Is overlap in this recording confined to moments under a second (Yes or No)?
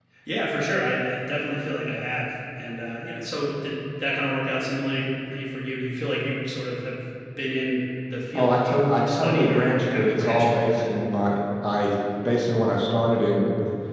No